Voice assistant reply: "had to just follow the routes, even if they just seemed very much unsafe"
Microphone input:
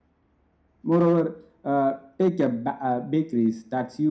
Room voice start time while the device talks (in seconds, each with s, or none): 0.8 s